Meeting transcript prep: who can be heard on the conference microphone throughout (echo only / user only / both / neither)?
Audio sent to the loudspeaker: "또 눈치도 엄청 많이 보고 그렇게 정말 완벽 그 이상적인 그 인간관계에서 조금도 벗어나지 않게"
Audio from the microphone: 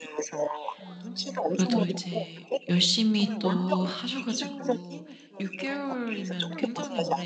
both